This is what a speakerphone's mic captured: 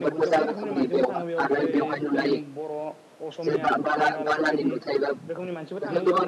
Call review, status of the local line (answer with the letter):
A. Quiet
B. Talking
B